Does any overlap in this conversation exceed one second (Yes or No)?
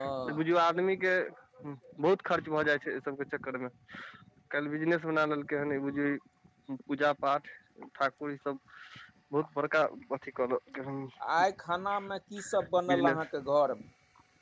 No